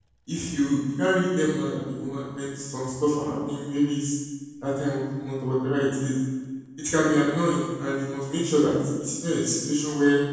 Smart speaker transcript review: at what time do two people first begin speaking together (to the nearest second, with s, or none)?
none